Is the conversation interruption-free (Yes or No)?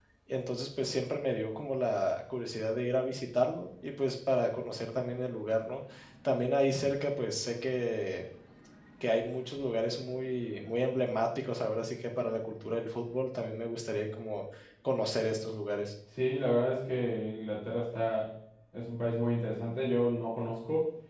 Yes